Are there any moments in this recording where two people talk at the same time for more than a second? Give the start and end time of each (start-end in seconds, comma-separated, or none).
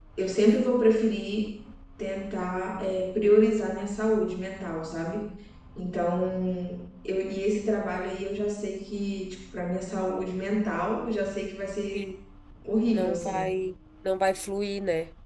none